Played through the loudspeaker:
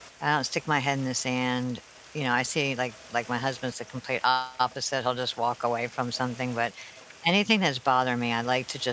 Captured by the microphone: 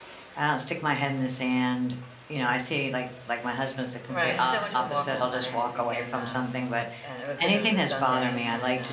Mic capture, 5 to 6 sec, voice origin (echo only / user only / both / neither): both